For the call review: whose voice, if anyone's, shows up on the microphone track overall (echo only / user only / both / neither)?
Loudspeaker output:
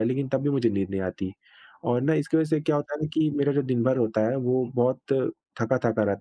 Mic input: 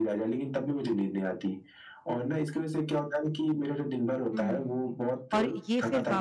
both